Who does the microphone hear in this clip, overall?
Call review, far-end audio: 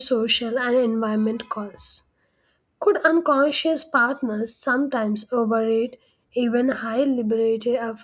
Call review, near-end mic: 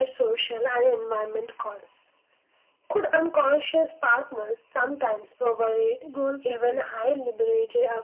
both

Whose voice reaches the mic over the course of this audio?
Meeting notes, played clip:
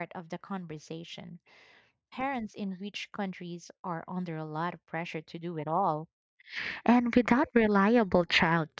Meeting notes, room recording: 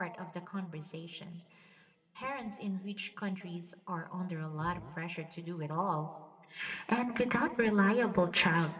both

